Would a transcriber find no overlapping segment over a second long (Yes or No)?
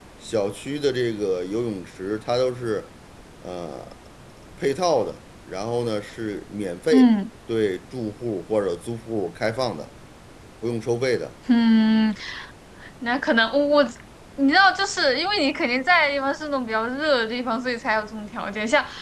Yes